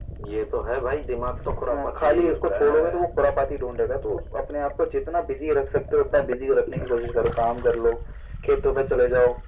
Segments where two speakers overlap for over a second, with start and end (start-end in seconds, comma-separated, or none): 1.7-3.0